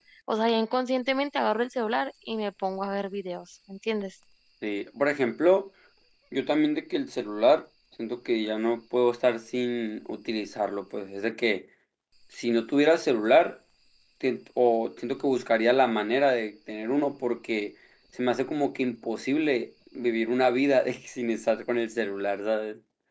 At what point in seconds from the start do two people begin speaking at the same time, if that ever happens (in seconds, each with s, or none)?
none